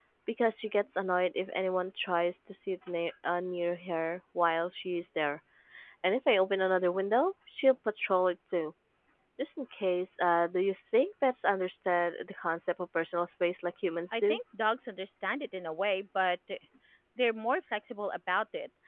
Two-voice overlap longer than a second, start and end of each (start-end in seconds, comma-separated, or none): none